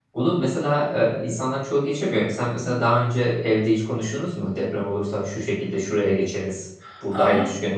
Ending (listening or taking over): taking over